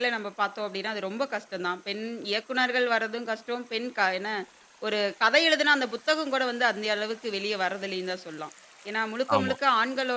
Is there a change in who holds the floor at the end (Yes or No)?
No